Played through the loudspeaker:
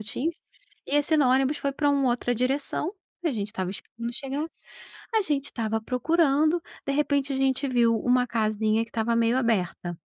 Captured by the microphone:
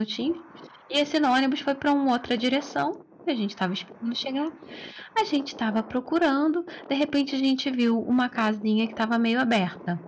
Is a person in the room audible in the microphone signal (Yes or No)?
No